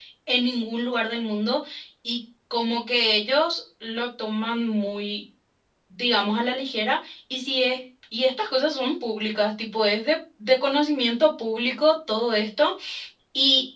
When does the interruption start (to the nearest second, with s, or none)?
none